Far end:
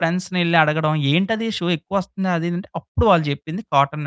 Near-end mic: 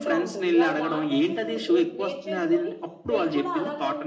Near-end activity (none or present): present